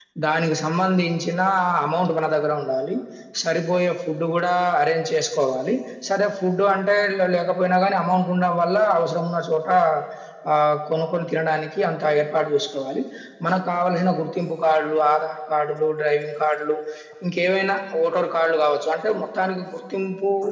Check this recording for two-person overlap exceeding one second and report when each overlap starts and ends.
none

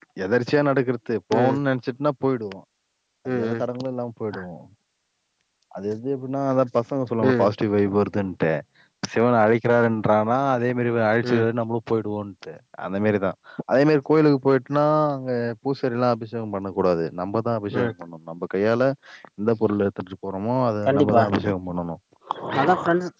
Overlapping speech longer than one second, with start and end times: none

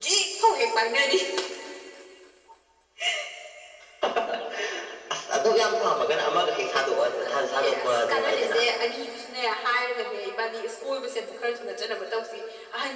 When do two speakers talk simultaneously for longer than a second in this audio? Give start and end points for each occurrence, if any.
7.2-8.6

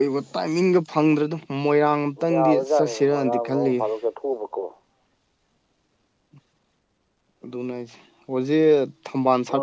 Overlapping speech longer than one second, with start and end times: 2.3-3.8

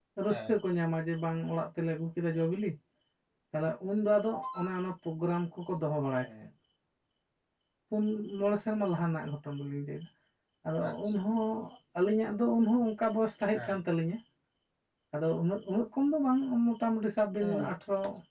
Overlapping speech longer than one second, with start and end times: none

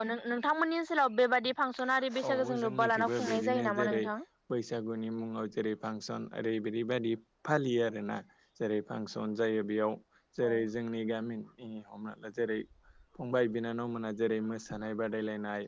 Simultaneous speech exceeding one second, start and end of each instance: 2.2-4.0

